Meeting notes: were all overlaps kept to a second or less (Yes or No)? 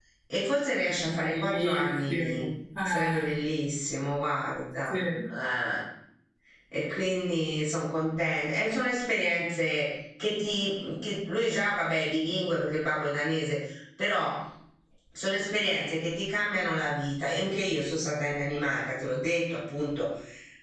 No